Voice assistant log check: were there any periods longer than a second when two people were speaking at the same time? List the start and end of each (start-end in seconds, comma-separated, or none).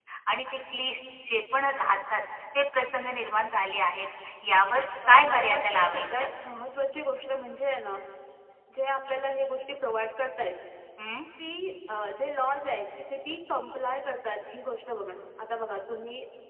5.1-6.3